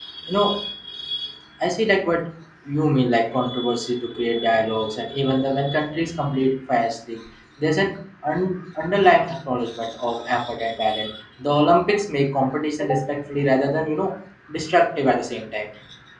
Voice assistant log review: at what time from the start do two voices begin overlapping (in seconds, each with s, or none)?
none